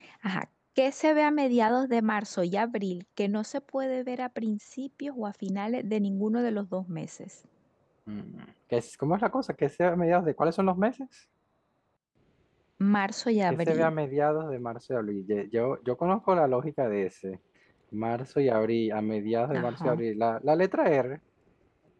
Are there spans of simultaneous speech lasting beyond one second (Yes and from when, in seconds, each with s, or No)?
No